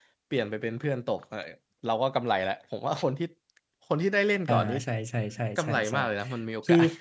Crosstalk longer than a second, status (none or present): none